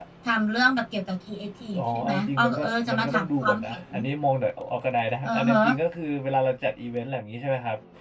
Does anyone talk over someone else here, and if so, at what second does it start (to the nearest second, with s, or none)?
2 s